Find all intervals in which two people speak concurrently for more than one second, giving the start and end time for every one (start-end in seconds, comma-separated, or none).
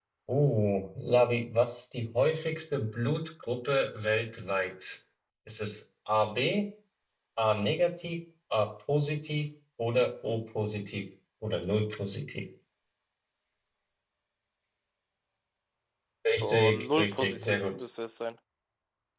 16.4-17.7